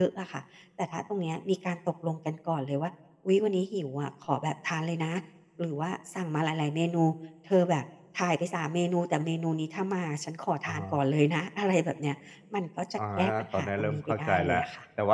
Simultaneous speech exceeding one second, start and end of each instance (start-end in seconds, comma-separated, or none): 13.2-14.6